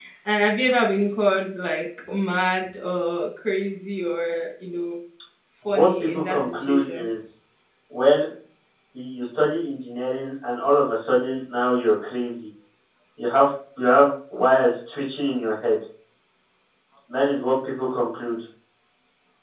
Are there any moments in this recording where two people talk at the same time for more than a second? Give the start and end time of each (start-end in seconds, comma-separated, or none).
5.7-7.1